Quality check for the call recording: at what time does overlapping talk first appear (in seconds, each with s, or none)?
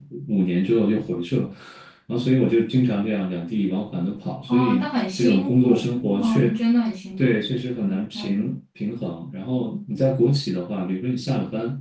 4.5 s